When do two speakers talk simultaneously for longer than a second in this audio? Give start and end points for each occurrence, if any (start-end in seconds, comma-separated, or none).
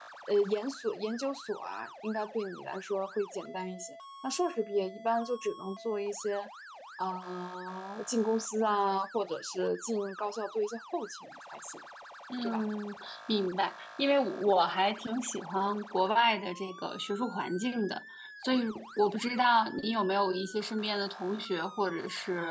none